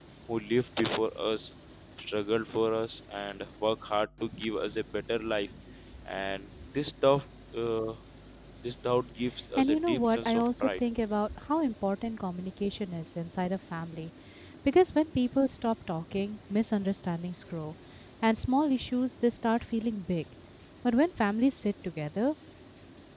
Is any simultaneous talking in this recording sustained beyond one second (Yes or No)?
Yes